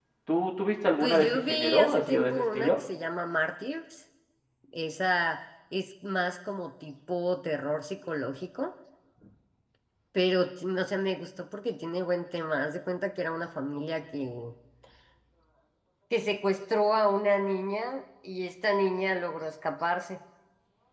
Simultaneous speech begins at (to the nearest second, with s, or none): 1 s